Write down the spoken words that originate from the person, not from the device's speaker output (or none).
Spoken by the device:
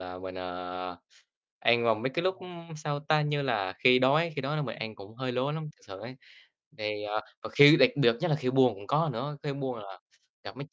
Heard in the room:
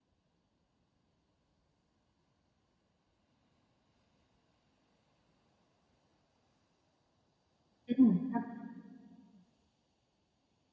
Ừm, sao?